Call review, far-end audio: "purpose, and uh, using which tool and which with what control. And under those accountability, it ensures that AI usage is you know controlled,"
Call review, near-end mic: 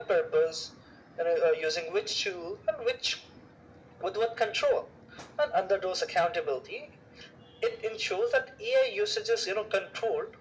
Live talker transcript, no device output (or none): none